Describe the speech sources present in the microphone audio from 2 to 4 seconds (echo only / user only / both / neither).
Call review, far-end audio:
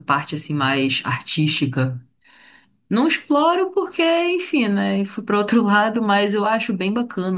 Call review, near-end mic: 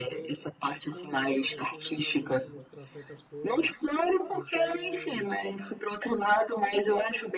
both